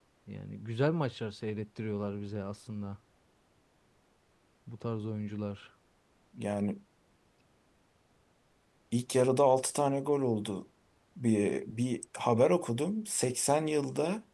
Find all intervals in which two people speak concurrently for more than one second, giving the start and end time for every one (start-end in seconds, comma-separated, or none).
none